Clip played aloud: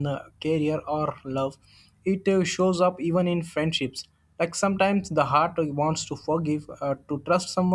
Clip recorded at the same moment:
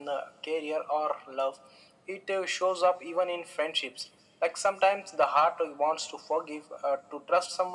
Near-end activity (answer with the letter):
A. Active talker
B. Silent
B